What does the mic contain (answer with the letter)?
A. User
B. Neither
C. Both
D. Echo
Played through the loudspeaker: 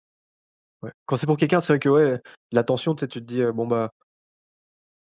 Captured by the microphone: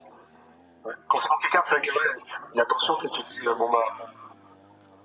D